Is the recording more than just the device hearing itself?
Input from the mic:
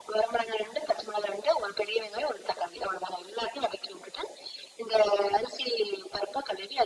No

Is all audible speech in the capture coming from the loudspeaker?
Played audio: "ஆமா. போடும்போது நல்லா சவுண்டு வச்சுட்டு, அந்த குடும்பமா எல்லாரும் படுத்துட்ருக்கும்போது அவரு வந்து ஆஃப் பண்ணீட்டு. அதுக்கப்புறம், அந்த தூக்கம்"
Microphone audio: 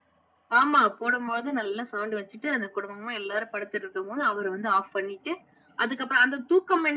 Yes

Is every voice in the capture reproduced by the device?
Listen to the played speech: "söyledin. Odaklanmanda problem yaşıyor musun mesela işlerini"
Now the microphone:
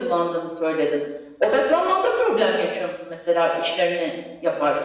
Yes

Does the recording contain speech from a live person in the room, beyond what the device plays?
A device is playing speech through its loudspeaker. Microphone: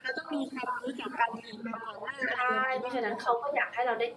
Yes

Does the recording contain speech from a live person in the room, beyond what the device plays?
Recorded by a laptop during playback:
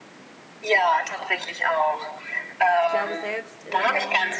Yes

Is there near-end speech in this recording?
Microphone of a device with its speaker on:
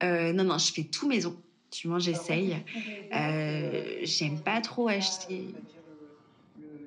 Yes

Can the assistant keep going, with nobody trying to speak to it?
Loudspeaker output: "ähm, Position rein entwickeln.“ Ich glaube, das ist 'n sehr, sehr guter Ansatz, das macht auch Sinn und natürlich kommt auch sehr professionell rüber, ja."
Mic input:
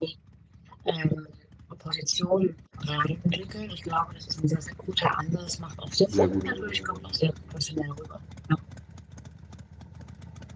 No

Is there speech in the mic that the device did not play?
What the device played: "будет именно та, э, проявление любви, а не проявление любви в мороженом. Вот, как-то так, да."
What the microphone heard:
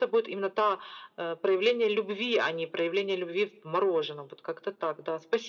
No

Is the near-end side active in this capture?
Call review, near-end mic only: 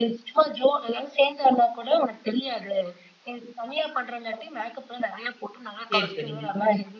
Yes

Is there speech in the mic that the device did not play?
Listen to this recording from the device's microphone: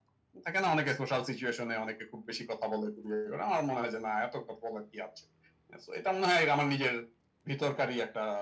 No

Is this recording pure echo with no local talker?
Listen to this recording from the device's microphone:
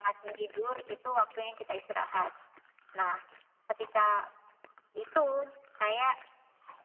Yes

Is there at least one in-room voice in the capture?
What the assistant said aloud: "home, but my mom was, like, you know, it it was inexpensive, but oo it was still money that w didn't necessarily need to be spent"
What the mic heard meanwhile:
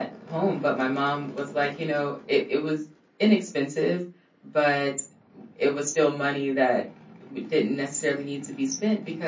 No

